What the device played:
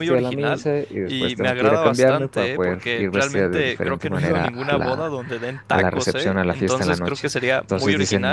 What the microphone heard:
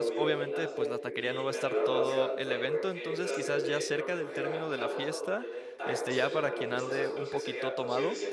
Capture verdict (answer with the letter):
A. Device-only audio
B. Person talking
B